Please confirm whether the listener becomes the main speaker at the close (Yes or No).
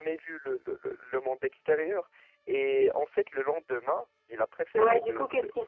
Yes